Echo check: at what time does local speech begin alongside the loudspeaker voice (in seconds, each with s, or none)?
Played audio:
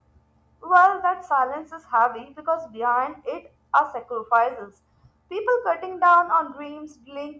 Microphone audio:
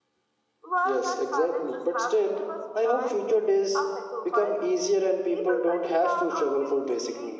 0.8 s